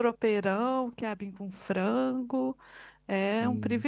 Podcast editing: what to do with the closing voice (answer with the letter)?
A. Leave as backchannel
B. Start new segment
B